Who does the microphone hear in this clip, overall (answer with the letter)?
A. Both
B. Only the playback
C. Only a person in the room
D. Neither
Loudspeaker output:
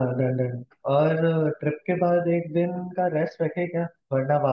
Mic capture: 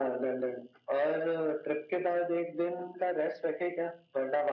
B